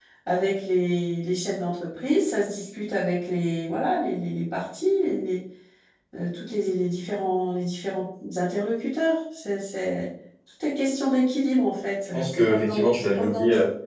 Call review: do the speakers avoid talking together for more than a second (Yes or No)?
No